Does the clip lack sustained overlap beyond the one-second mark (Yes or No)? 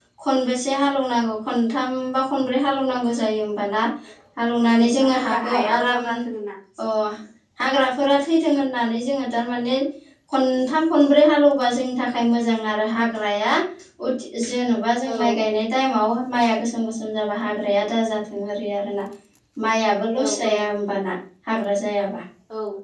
No